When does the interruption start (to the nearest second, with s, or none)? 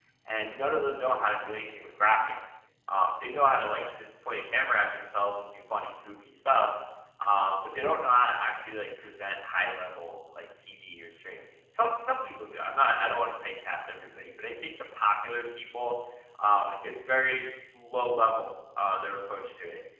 none